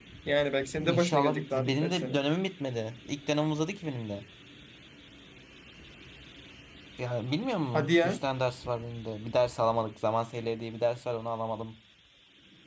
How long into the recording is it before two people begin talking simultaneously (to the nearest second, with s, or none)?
1 s